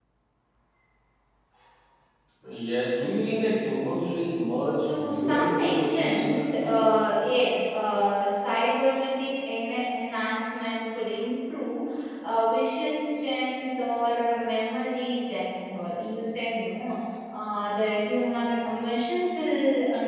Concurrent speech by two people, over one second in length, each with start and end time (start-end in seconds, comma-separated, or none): 4.9-6.8